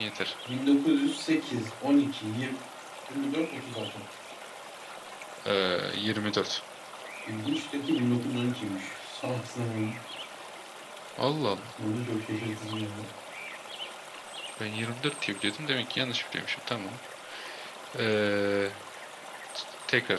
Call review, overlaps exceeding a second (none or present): none